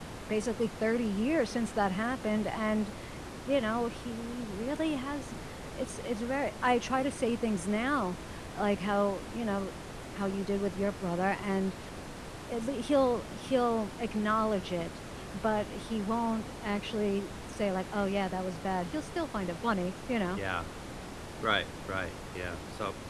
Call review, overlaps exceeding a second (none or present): none